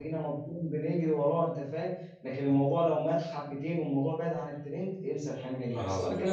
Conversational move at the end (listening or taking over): listening